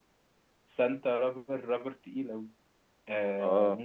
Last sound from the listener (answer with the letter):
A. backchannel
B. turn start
A